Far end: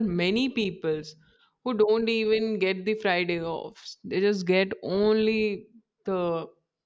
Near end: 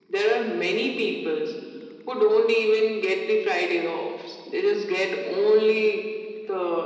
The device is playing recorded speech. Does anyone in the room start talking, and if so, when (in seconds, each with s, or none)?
none